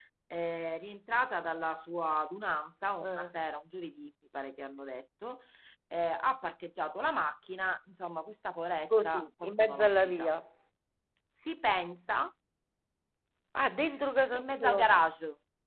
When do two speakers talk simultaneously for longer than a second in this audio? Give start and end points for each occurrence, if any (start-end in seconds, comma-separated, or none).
9.0-10.3